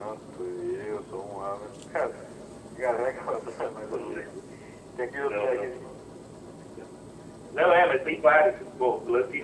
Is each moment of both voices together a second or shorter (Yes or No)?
Yes